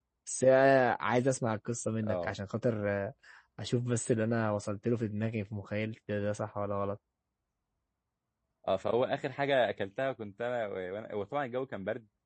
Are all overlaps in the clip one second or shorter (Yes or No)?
Yes